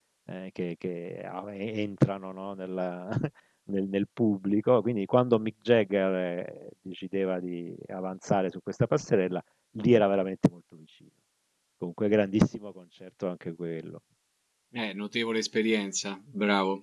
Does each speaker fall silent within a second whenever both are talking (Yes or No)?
Yes